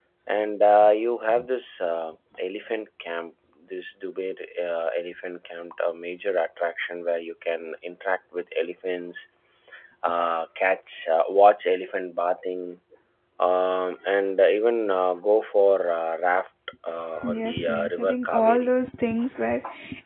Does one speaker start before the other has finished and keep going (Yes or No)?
Yes